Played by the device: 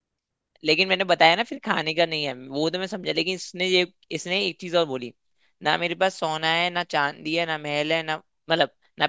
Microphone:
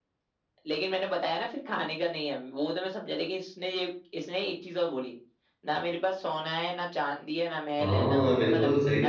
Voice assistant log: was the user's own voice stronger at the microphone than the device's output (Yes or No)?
Yes